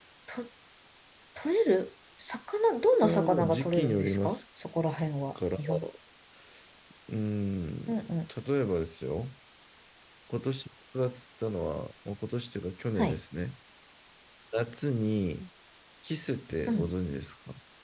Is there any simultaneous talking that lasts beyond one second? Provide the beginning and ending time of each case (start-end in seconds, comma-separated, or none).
2.9-4.4